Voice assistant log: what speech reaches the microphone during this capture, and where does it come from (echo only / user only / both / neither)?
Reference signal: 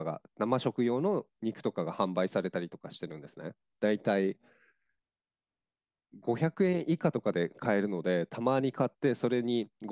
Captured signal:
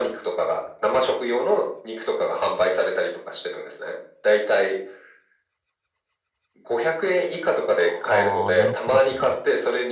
both